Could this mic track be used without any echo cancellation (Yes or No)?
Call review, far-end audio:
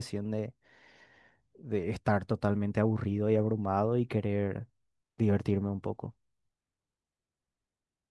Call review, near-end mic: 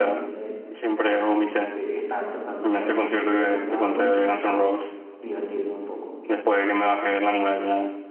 No